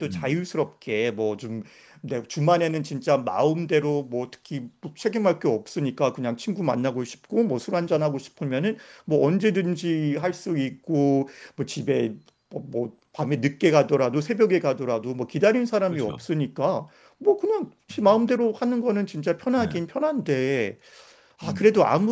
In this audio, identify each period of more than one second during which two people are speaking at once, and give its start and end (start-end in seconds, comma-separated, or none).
none